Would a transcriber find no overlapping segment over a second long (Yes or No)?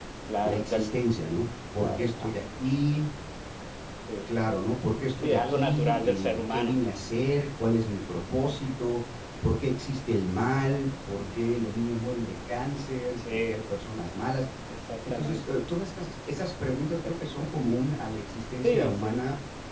No